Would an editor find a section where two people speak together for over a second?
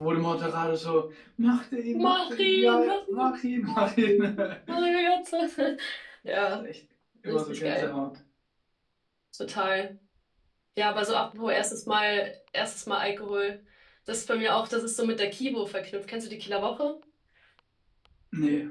Yes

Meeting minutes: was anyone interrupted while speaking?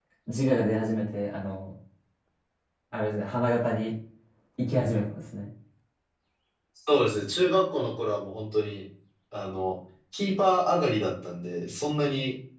No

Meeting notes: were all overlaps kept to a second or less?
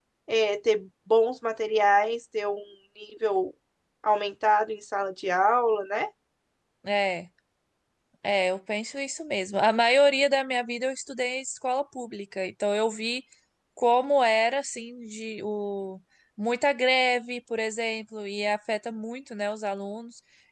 Yes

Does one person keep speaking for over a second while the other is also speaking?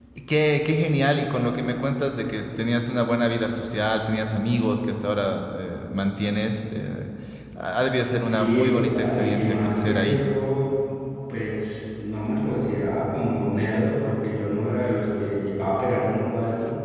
Yes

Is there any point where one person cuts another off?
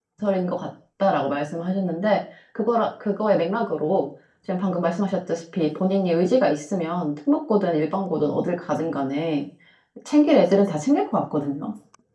No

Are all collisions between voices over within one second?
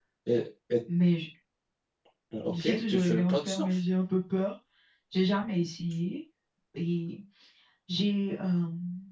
No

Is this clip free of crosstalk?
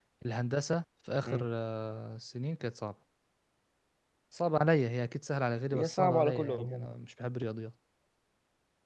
No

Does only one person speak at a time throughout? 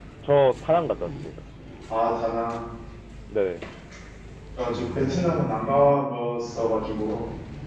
Yes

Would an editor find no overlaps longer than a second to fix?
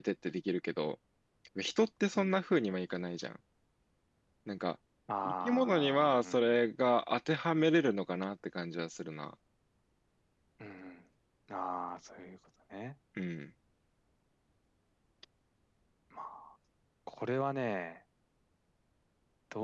No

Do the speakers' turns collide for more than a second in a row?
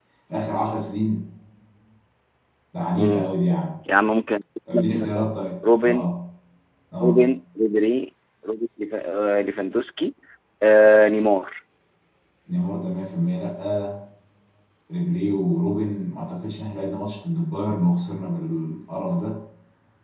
No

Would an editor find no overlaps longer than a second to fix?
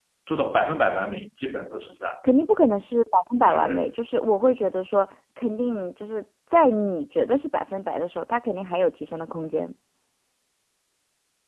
Yes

